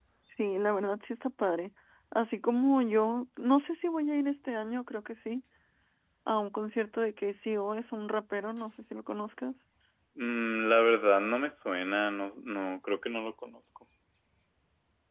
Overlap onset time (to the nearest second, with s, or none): none